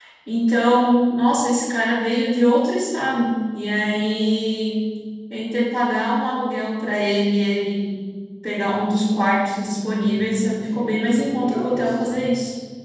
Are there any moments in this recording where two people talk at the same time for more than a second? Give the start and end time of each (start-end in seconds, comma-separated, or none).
9.9-12.3